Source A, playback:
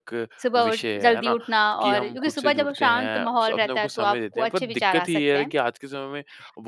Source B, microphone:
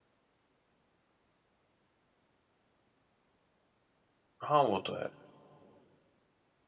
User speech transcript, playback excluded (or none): हाँ, वो तो है।